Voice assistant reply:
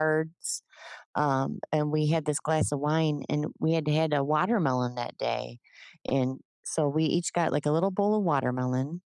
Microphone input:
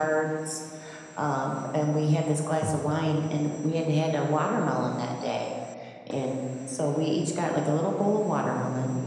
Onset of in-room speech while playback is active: none

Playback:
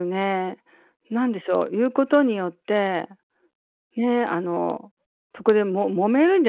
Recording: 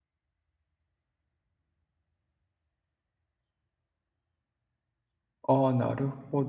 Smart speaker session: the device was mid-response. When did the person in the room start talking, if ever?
5 s

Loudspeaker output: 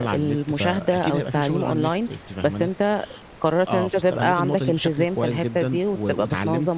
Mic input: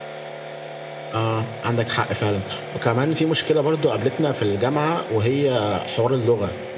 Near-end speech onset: 1 s

